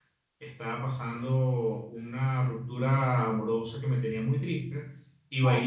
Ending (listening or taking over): listening